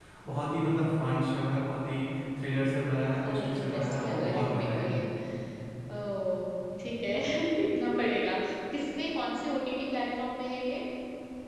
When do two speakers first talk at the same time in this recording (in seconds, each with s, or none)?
3.2 s